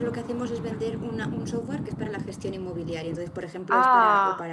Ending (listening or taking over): listening